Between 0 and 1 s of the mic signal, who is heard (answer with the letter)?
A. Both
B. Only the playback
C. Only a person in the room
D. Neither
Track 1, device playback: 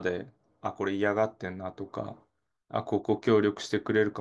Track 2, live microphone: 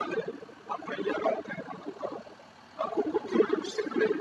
B